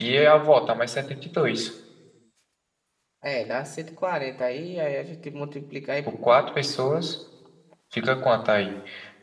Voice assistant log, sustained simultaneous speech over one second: none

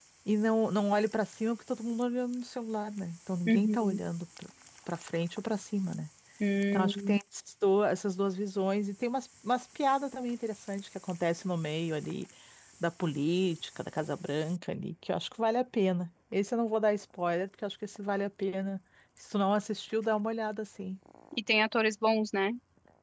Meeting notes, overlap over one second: none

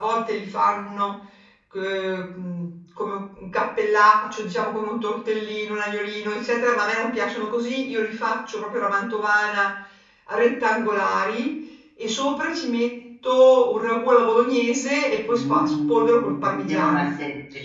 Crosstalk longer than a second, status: present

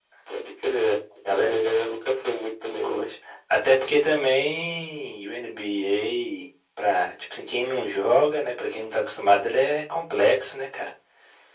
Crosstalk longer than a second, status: none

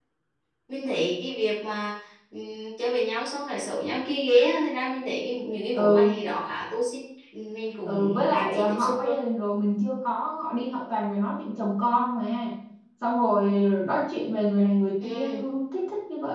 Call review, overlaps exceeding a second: present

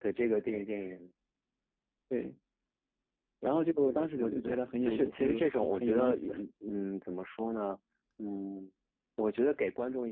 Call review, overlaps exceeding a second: present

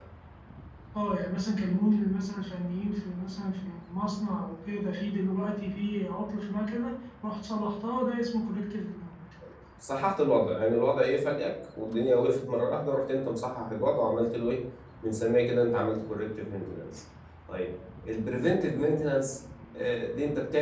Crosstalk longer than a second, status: none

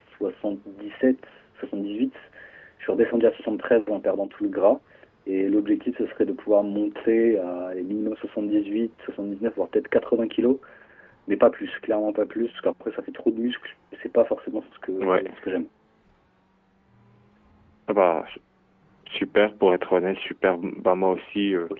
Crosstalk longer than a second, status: none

